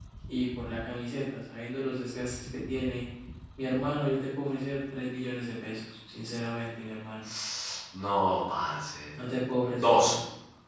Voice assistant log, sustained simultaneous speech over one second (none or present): none